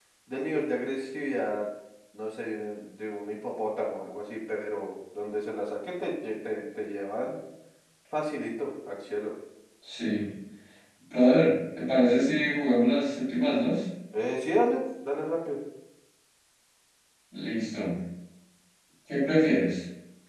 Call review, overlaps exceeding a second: none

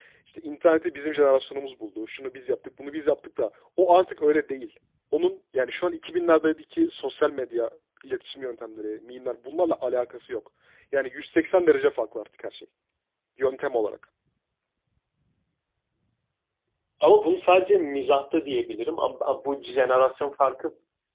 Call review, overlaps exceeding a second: none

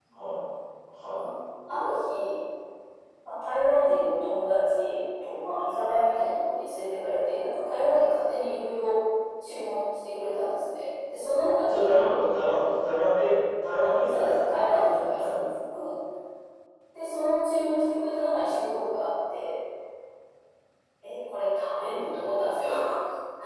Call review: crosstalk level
present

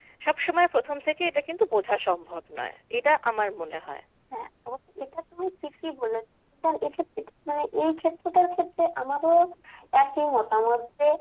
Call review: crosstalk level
none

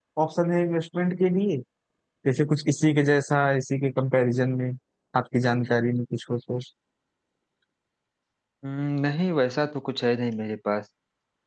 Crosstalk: none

